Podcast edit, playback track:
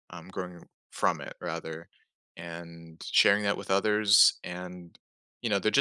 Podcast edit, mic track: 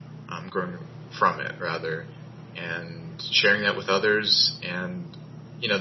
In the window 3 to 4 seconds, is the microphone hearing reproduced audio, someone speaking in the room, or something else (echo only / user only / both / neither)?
echo only